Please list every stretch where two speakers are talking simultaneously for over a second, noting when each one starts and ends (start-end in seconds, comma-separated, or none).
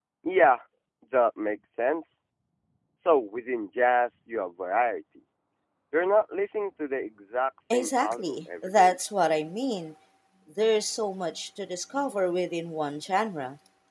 7.7-9.0